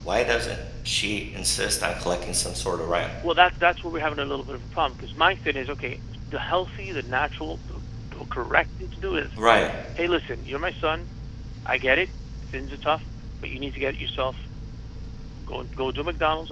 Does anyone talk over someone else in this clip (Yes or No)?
No